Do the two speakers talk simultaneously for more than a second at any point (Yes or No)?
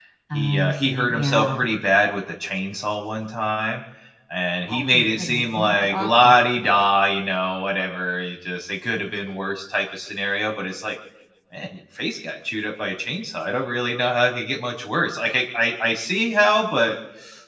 Yes